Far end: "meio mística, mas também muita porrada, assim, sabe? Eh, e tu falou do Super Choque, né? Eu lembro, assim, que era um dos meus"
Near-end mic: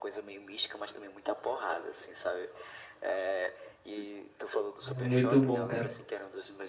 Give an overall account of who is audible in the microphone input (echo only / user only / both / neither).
both